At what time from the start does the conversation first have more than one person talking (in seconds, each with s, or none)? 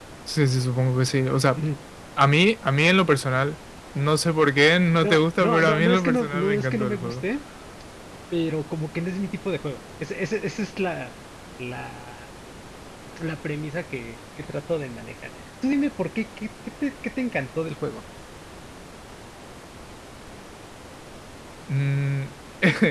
5.0 s